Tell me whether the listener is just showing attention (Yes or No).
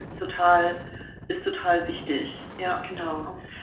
No